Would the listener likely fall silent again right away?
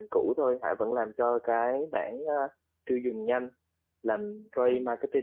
Yes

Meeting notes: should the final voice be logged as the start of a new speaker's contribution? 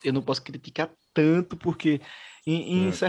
No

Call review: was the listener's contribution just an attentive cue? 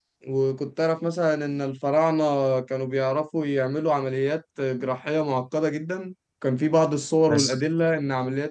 Yes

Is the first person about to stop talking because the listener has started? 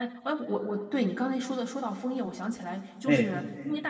No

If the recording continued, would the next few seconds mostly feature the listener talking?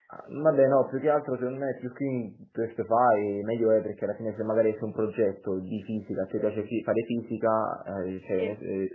No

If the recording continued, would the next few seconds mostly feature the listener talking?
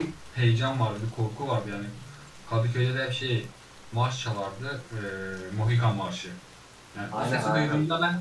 No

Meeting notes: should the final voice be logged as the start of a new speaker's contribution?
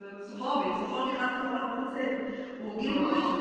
No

